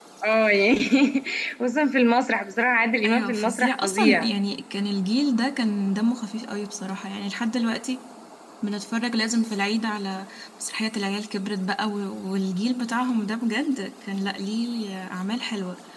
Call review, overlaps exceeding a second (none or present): present